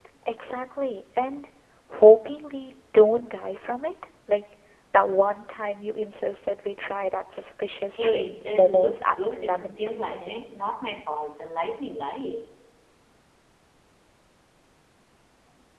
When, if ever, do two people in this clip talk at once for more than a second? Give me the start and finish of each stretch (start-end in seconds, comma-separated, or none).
7.9-10.4